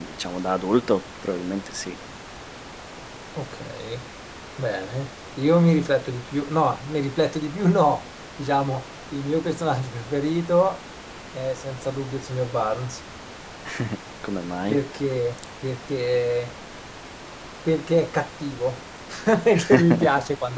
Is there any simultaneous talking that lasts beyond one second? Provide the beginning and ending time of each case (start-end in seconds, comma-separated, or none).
none